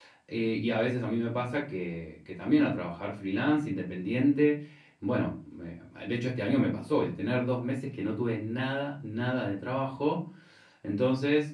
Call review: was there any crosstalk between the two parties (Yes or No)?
No